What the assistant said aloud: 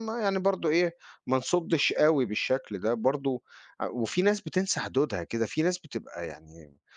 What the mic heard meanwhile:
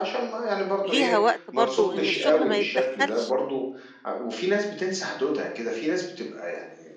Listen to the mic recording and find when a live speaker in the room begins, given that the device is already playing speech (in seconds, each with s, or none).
0.8 s